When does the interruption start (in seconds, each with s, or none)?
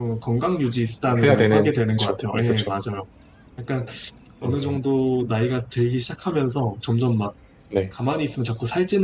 1.2 s